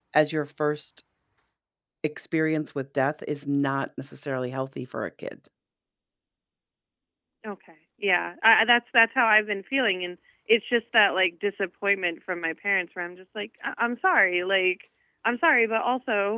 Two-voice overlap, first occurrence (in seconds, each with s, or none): none